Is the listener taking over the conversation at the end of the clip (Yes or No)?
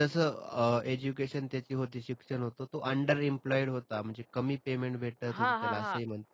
Yes